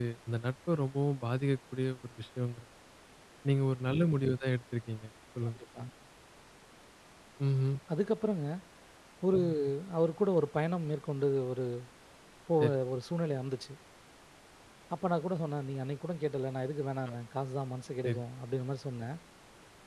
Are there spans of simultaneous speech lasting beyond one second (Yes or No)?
No